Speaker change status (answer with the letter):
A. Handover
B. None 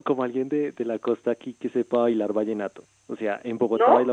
B